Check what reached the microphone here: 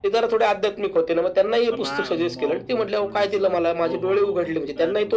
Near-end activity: present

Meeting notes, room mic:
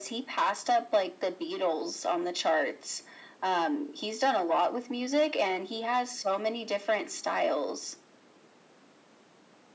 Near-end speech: none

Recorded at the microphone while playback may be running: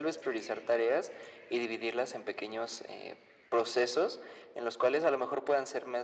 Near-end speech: none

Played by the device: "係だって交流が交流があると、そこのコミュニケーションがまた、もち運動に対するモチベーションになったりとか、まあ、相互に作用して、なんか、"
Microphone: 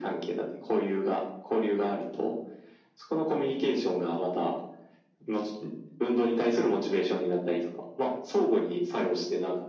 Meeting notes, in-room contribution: none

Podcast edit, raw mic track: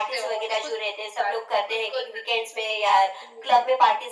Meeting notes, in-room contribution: none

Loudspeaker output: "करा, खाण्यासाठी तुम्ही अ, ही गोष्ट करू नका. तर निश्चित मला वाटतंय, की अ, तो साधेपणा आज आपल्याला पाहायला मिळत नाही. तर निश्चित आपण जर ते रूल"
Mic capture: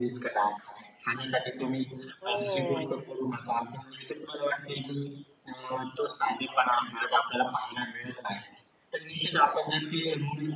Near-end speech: present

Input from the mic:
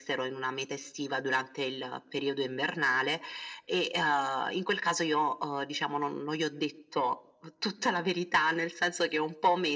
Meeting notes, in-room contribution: none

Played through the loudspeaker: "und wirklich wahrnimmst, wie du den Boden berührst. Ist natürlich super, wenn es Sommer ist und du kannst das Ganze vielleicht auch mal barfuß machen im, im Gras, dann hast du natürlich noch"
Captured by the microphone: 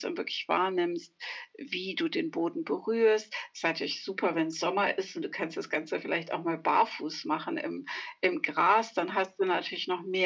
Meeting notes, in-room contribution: none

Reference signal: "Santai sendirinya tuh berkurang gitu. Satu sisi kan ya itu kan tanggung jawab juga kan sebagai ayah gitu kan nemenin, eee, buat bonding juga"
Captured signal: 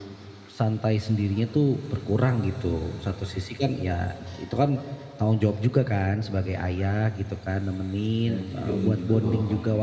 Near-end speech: present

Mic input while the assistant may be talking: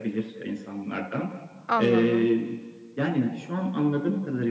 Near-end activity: present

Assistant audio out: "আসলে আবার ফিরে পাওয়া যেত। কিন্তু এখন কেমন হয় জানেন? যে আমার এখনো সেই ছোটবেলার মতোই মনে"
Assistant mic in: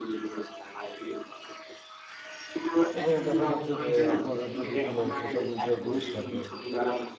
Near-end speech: present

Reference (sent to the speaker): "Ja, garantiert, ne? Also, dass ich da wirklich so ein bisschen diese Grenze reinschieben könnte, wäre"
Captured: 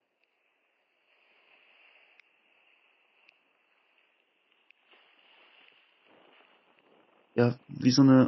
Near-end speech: present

